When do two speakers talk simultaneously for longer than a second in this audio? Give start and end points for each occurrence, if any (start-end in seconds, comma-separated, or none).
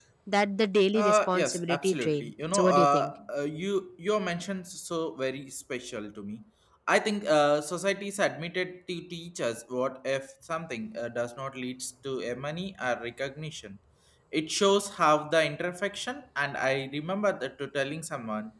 0.9-3.1